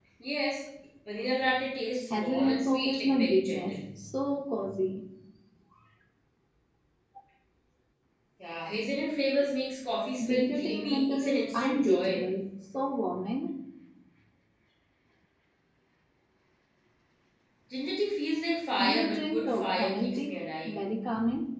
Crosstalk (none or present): present